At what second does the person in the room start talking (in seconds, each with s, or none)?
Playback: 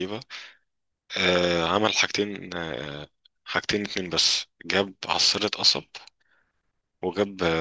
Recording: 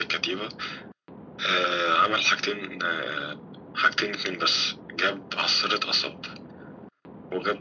none